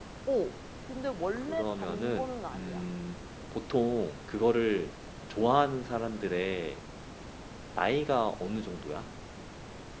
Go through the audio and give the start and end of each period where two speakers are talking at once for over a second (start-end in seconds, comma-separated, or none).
1.5-2.8